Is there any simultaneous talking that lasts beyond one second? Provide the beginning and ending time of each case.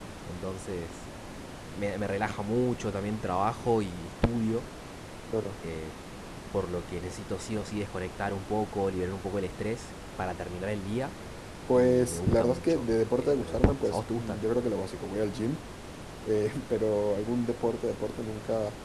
11.7-14.5

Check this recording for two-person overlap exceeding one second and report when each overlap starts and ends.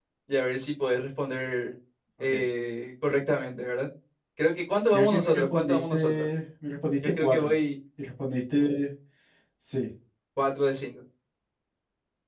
4.9-6.2

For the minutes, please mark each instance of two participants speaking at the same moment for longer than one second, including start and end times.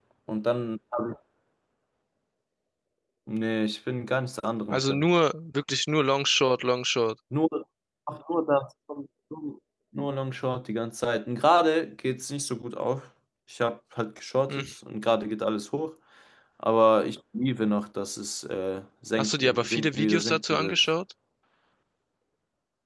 19.2-20.8

